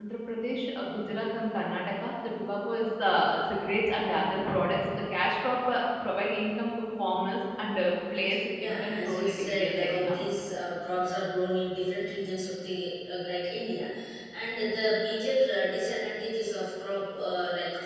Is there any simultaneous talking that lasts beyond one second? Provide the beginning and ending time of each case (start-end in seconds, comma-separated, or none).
8.6-10.3